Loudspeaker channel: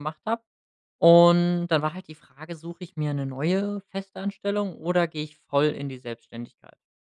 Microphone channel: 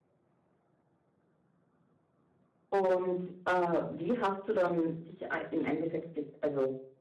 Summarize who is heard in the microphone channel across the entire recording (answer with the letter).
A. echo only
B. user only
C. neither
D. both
B